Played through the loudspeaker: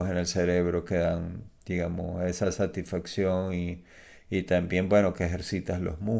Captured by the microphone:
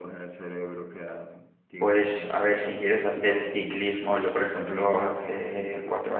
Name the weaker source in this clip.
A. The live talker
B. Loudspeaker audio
B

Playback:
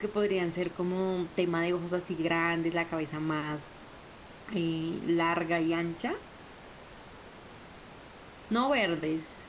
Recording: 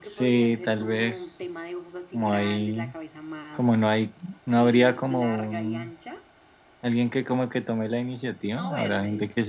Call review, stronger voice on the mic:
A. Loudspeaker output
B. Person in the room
B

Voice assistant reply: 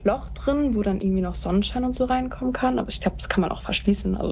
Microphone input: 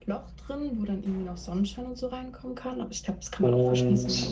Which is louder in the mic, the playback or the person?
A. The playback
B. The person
B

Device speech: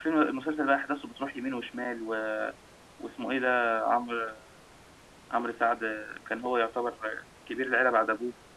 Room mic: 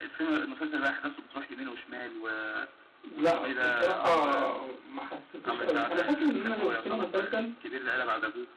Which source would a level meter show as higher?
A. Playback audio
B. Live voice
B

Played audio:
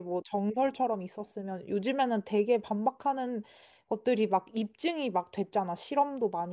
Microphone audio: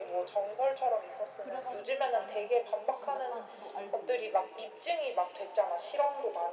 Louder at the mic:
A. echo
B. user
A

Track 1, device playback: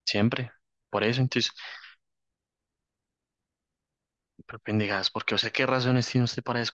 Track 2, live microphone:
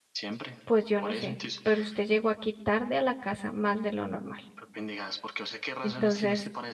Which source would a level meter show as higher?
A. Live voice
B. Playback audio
A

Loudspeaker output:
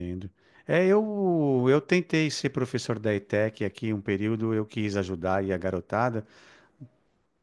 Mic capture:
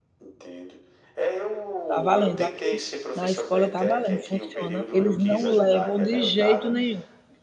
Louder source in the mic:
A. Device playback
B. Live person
B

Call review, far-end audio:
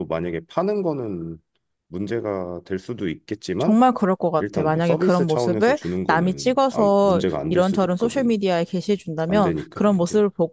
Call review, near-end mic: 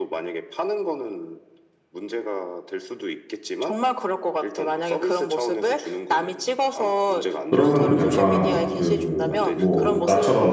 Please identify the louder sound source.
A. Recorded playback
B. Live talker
B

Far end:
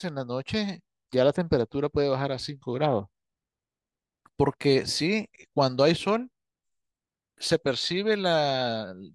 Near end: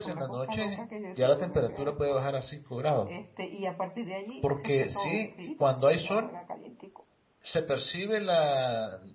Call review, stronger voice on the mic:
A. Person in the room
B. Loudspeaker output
B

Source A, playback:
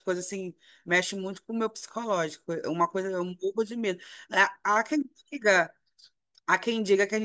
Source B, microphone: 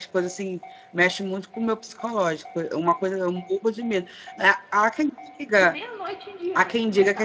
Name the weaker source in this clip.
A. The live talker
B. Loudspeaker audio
A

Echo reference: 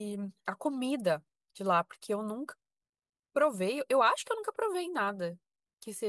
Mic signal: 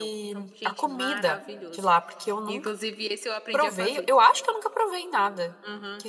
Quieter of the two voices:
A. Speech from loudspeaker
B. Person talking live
B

